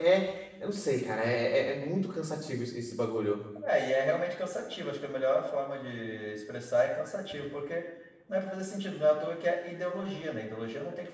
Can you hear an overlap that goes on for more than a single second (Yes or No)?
No